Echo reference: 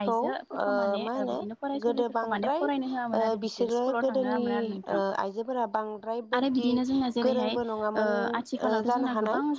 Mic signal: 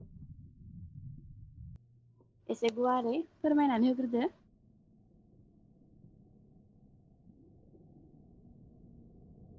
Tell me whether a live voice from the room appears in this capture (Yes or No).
Yes